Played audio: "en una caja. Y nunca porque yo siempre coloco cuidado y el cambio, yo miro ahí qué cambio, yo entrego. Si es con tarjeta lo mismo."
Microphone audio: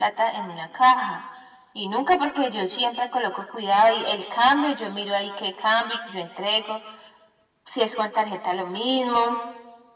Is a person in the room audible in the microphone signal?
No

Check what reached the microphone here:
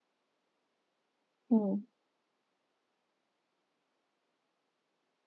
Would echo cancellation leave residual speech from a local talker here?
Yes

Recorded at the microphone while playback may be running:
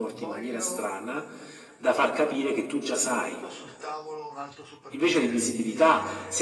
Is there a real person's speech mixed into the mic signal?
Yes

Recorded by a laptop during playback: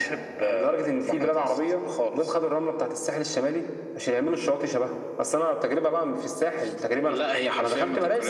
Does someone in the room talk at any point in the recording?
No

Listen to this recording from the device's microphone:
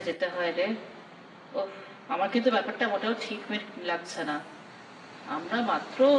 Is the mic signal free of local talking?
Yes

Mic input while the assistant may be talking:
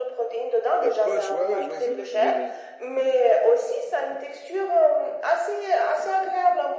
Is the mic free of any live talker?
No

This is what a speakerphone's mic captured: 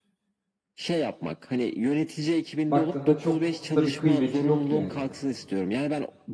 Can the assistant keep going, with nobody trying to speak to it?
No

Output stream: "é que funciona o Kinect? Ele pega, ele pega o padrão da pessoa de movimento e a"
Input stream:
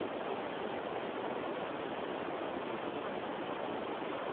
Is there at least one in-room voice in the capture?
No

